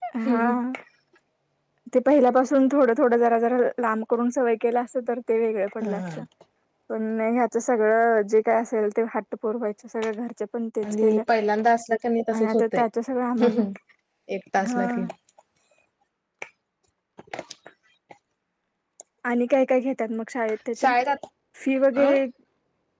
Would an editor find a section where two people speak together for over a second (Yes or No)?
No